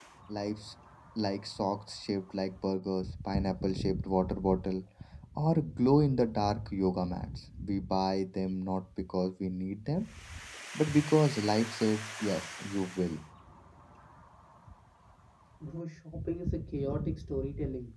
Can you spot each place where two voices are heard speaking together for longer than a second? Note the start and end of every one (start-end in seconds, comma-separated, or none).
none